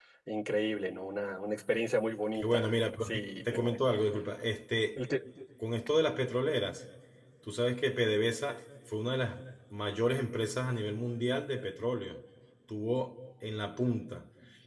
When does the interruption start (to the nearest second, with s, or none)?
2 s